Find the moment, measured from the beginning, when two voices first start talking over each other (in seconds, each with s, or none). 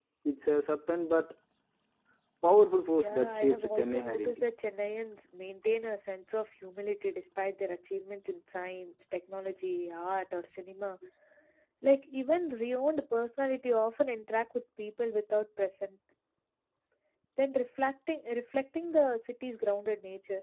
3.0 s